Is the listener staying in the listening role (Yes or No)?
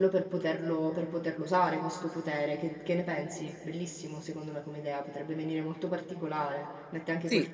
Yes